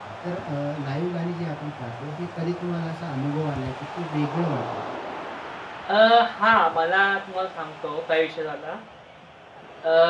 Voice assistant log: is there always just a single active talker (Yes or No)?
Yes